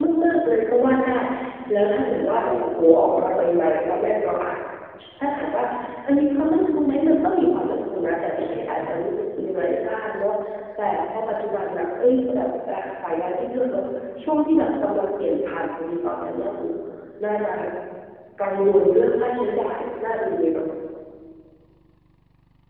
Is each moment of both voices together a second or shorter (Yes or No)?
Yes